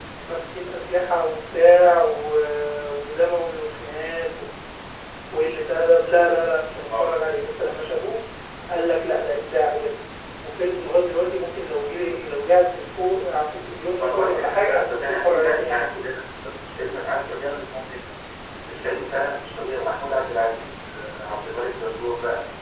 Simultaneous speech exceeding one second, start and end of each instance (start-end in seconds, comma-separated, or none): 14.0-15.9